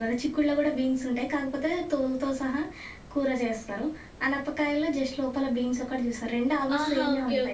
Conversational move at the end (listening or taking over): taking over